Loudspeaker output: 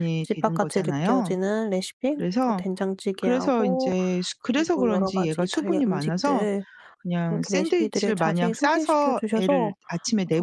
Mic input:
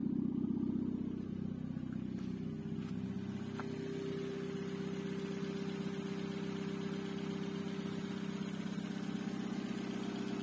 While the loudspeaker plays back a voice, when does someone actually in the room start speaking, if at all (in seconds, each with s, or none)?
none